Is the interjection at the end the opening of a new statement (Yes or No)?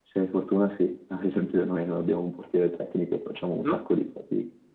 No